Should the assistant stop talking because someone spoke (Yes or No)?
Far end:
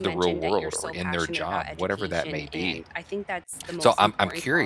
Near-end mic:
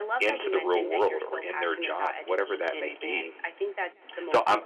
No